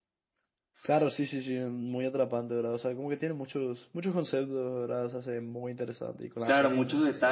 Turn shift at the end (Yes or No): Yes